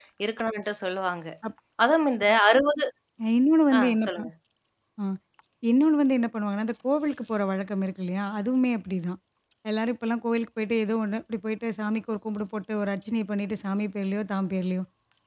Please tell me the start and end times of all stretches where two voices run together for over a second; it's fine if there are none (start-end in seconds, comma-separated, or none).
none